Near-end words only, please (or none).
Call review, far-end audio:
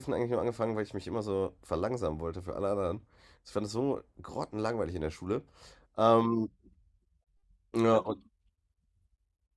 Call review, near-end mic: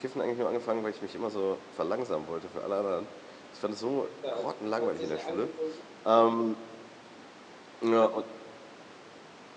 Ja, siehst du, also, hört sich ja an wie so ein 70 Ach